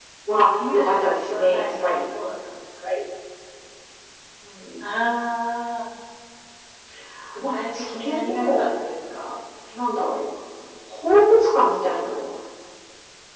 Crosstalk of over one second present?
Yes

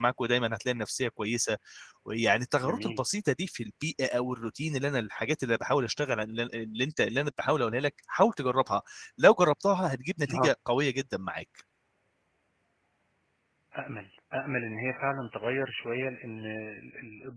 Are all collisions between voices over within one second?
Yes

